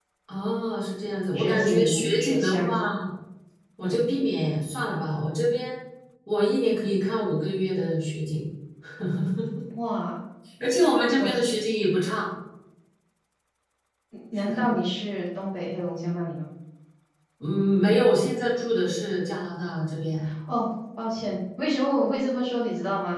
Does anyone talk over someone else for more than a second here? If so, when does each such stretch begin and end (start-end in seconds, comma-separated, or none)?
1.3-2.9